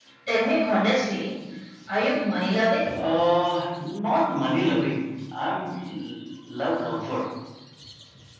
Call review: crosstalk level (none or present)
none